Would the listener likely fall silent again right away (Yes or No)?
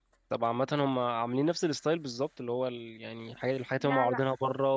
Yes